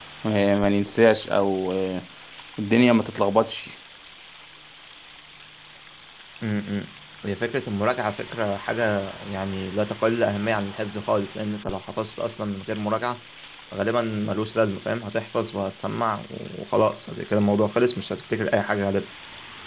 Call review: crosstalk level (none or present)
none